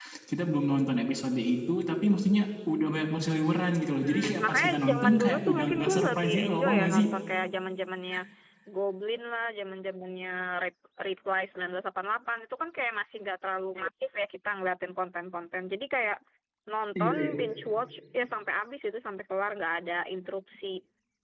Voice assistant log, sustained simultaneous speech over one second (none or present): present